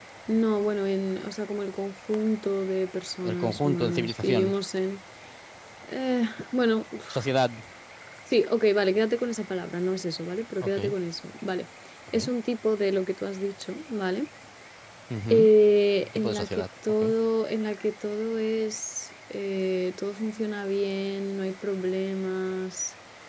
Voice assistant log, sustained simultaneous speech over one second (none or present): present